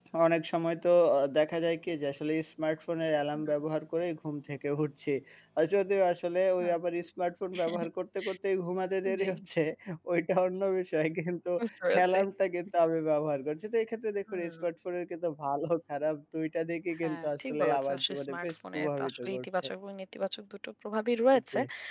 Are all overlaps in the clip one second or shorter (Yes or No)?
No